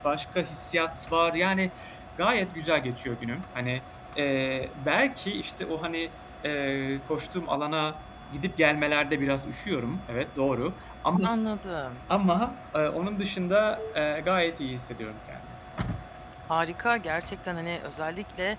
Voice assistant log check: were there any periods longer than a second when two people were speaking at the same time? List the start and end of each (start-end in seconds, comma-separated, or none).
none